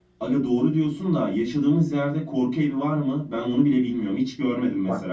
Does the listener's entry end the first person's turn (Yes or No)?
Yes